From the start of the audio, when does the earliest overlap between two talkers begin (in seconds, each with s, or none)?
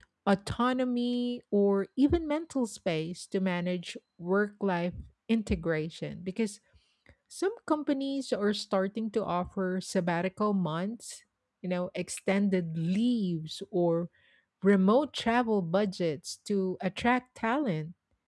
none